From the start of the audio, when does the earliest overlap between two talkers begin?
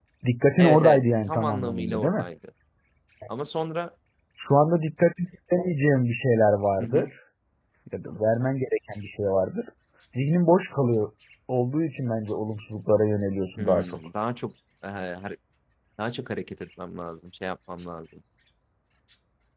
0.6 s

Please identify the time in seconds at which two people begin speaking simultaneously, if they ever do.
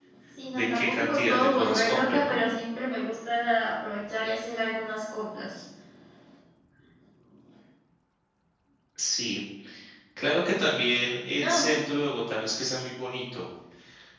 0.5 s

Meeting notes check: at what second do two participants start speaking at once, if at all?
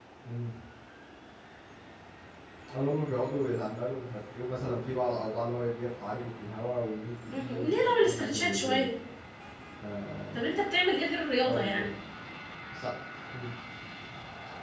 7.3 s

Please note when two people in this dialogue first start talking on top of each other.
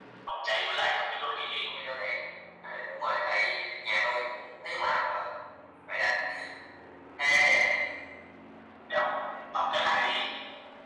none

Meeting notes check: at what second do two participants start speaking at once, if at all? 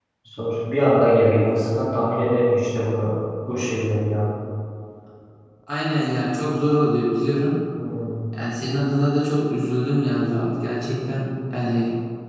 none

